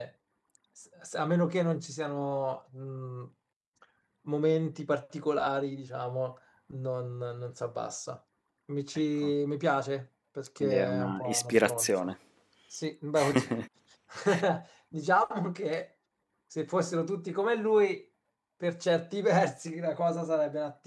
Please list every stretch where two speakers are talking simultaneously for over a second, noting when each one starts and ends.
10.6-12.1

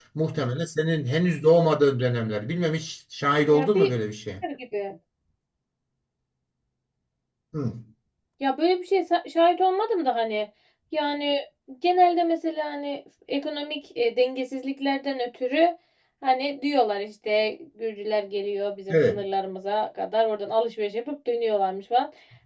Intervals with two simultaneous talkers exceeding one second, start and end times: none

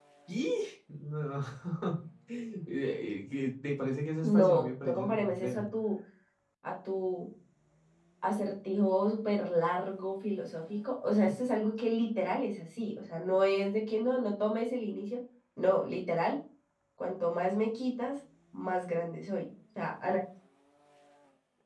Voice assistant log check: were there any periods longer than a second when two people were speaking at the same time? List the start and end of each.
4.2-5.6

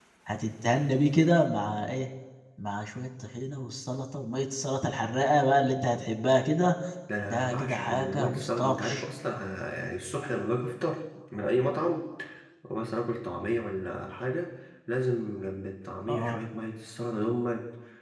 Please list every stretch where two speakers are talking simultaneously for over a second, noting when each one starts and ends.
7.3-9.0

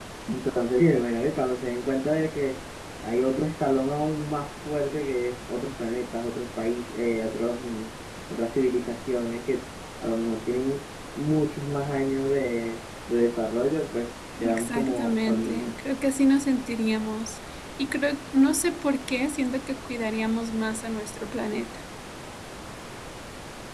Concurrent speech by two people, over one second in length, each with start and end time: 14.4-15.8

